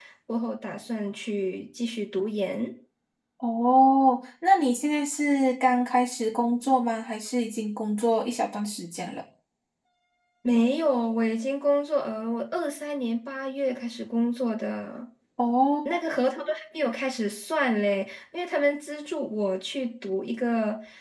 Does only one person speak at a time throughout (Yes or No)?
Yes